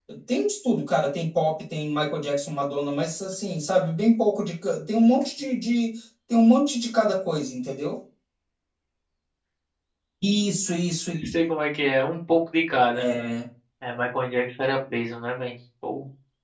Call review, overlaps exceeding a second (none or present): none